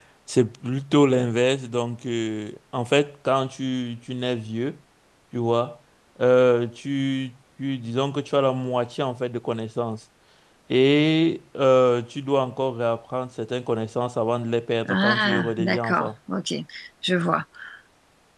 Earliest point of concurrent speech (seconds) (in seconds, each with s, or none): 14.8 s